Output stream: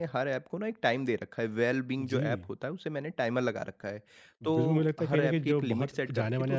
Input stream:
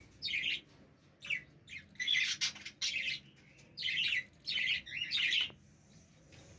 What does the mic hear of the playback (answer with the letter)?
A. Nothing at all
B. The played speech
A